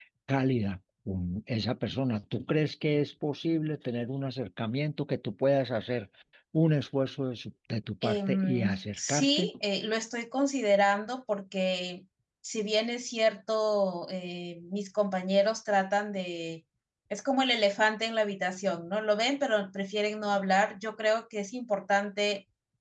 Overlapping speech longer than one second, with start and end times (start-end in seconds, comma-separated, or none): 8.0-9.5